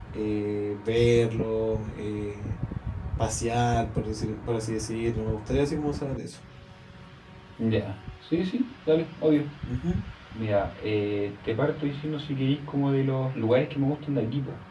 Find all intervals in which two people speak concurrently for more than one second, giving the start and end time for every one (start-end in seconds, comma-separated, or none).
none